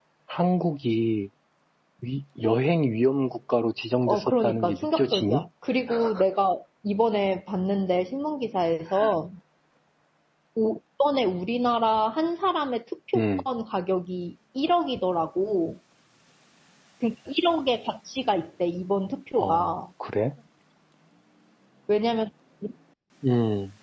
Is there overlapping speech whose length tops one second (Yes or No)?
Yes